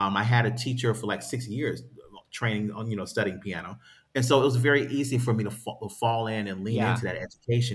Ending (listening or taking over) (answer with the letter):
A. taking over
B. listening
B